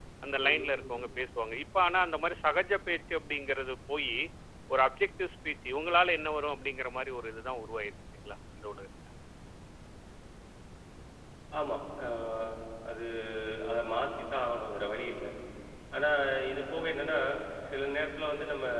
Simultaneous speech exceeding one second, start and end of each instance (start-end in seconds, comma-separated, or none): none